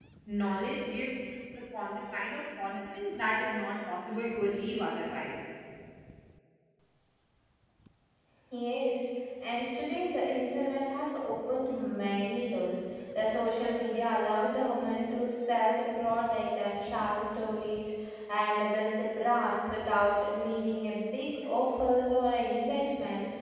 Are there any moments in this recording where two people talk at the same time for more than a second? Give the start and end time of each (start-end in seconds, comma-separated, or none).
none